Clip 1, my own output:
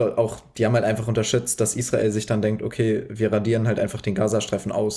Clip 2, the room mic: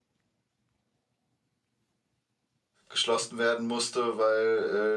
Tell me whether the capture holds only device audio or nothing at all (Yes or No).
No